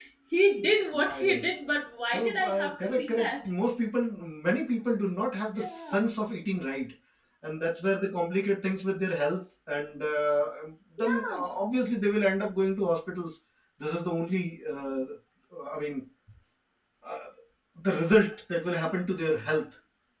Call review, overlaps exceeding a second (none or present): present